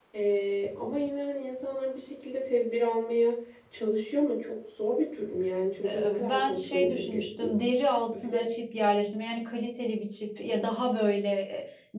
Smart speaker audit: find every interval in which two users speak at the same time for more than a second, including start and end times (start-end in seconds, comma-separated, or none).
5.8-7.5